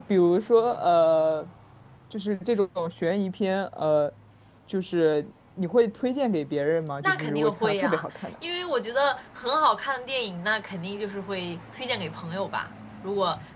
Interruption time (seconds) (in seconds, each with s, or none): 7.0 s